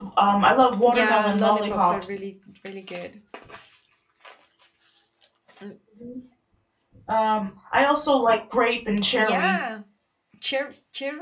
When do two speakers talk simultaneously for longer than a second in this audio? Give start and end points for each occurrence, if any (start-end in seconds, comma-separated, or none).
0.9-2.2